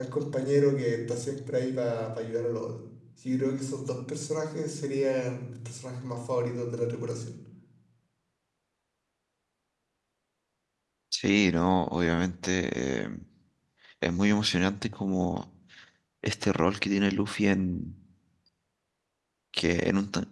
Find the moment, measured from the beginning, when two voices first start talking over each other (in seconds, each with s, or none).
none